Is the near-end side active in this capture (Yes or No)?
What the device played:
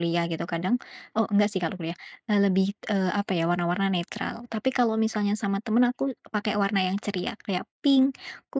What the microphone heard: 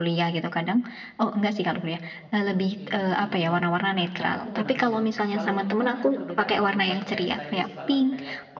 Yes